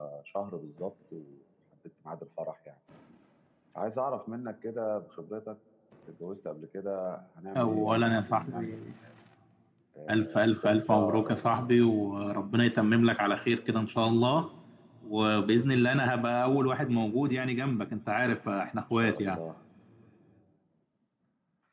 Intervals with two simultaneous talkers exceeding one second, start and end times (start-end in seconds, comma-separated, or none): 7.6-8.8, 10.1-11.7